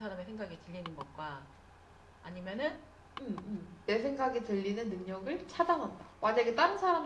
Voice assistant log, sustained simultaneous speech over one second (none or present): none